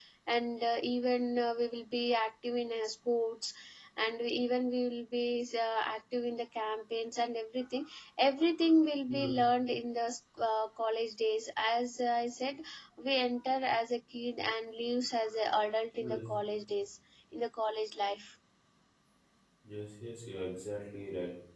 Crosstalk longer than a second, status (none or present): none